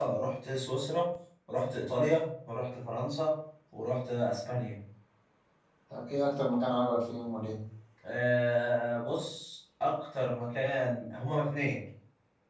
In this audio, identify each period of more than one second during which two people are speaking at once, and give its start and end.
none

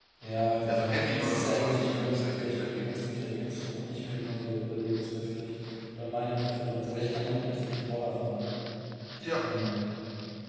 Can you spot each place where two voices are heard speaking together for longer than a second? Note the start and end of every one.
0.6-2.9

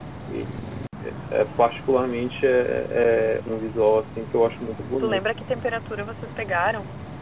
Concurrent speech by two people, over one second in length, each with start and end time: none

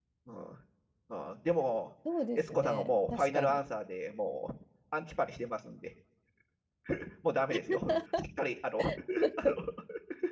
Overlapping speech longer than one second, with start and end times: 2.3-3.6

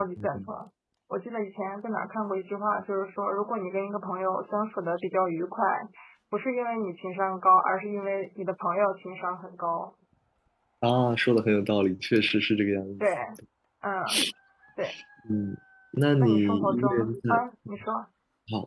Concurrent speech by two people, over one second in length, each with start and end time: 16.2-17.4

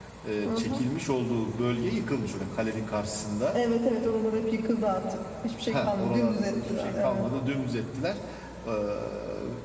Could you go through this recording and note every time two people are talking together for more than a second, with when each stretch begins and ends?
5.7-7.3

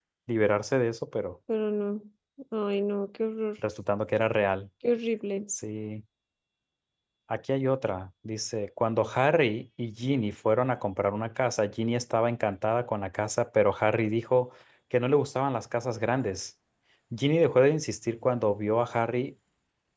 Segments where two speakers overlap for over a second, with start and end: none

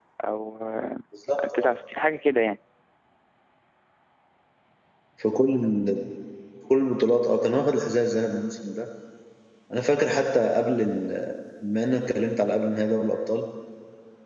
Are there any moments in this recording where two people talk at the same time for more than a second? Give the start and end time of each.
none

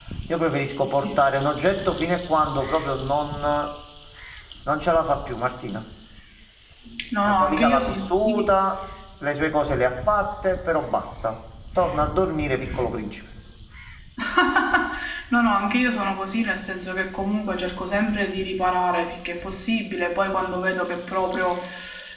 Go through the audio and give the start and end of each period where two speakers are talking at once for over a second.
7.3-8.6

